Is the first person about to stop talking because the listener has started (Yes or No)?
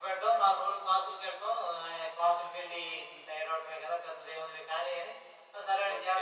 Yes